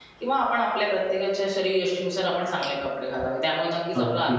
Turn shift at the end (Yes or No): No